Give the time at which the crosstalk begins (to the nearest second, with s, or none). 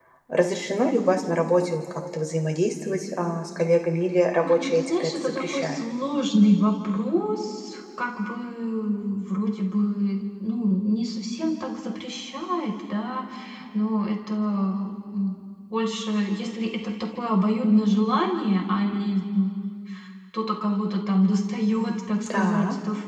4 s